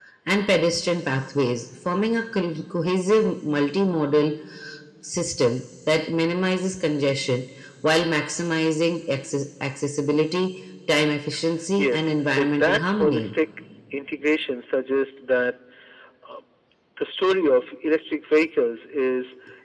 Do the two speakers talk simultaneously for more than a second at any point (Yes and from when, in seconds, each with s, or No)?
Yes, from 11.8 s